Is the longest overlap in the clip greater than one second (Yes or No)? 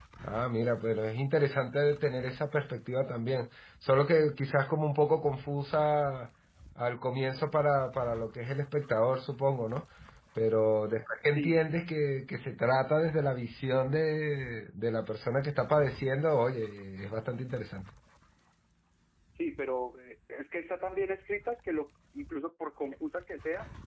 No